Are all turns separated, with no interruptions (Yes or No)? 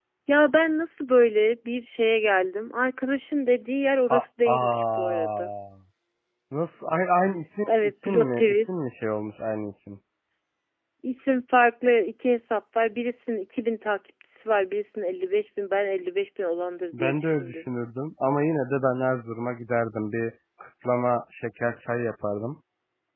No